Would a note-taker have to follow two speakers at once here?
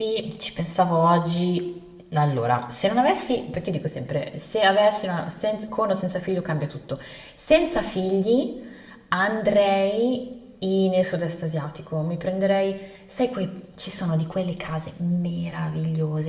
No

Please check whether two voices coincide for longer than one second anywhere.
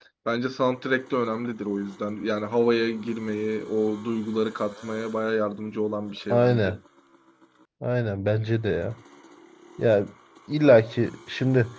No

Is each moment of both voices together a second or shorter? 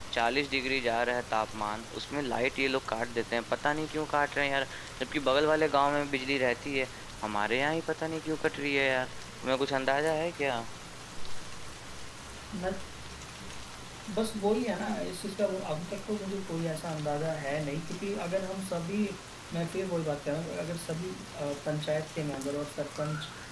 Yes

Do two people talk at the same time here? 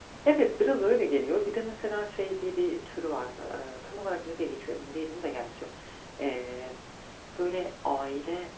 No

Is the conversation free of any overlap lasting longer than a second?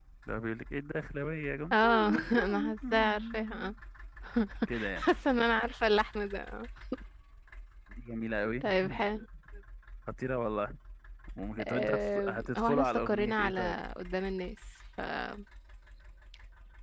No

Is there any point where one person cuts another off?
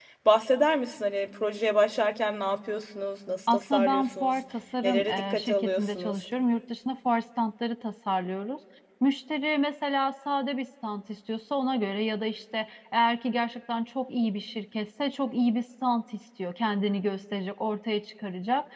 Yes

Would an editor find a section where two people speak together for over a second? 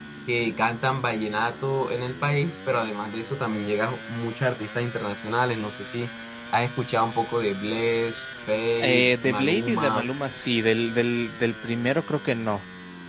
Yes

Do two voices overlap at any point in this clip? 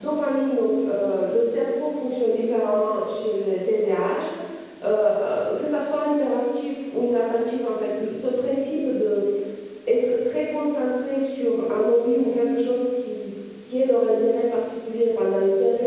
No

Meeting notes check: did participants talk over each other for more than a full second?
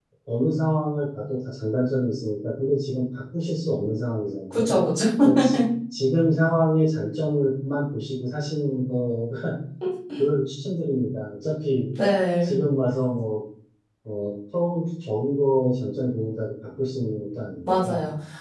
No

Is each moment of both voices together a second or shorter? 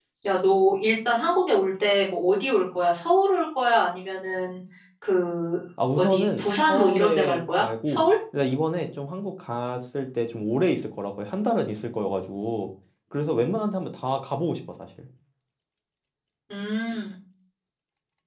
No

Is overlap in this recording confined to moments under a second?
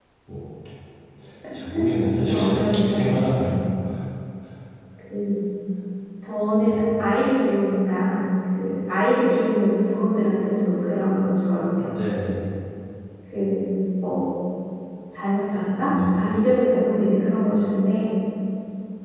No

